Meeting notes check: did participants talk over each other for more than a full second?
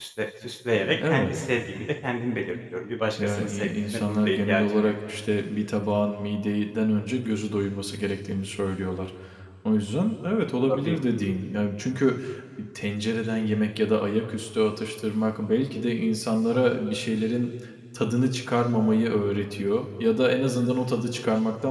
Yes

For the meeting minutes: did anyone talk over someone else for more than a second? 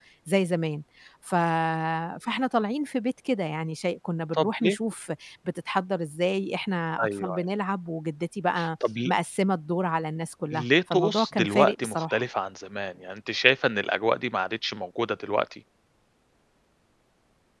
Yes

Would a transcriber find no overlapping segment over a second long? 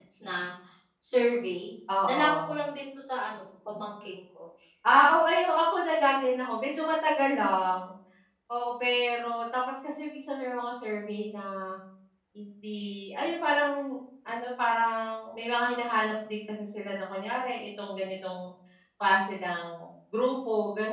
Yes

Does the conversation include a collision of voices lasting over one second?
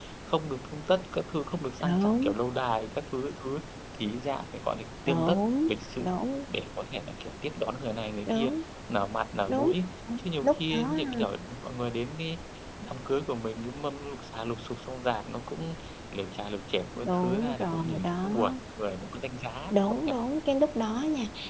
Yes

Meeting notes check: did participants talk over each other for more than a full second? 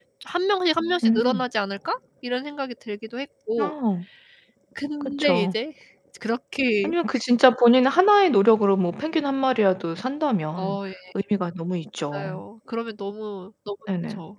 No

